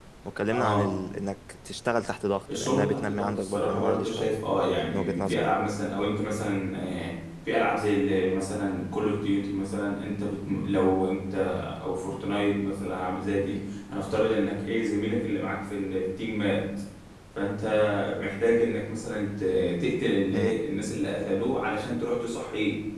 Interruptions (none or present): present